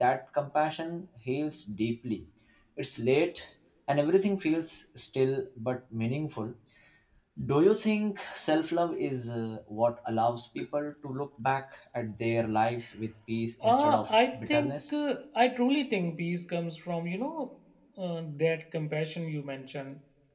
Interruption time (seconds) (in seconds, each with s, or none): 13.6 s